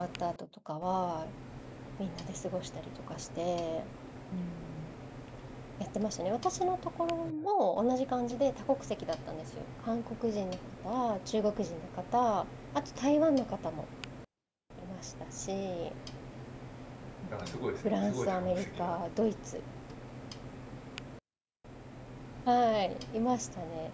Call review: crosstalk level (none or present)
present